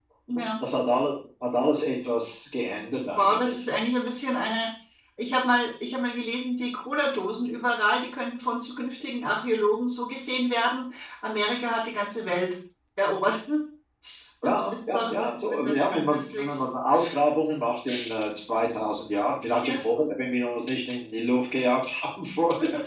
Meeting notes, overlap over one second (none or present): present